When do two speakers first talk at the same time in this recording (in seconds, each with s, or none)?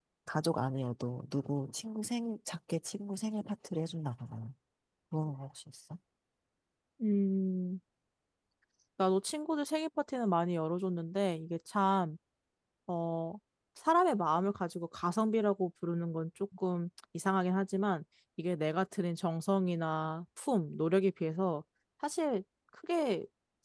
none